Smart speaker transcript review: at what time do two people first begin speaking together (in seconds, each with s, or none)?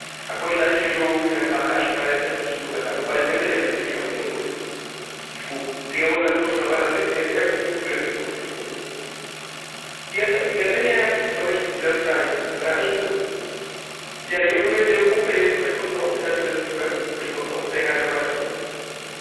2.8 s